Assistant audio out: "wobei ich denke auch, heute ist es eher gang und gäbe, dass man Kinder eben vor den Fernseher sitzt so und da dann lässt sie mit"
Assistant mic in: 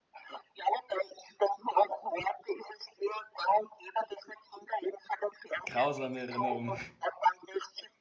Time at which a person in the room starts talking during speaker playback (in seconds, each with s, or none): 5.6 s